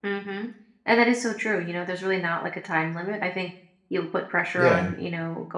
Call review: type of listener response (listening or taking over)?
listening